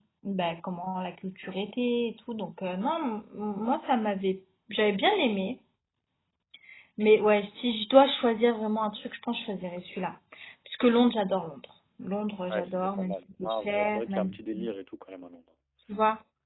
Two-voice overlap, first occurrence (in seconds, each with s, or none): 12.5 s